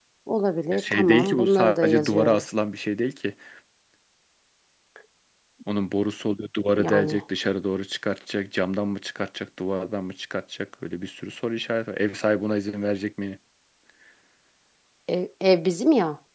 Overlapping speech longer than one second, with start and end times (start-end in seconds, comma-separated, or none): 0.7-2.4